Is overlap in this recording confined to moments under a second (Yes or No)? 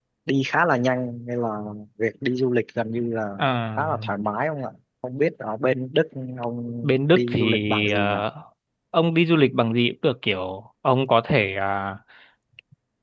No